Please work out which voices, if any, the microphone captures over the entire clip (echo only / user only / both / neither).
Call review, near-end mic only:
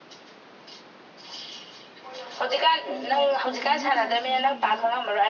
both